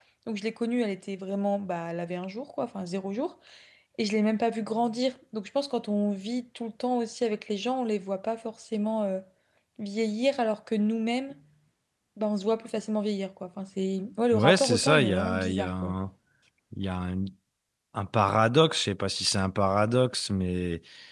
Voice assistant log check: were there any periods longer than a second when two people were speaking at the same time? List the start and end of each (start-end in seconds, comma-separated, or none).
14.3-15.9